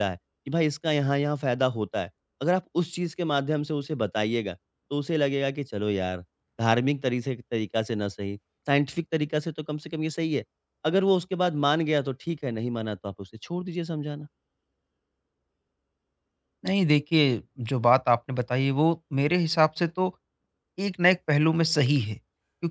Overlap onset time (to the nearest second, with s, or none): none